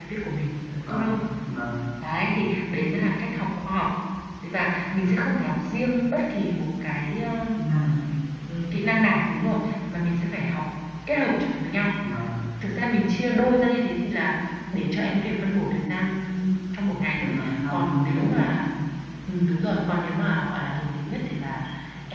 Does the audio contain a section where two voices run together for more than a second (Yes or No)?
Yes